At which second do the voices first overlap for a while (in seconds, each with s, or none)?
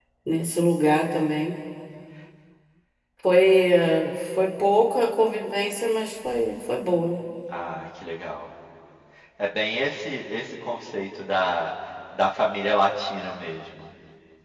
none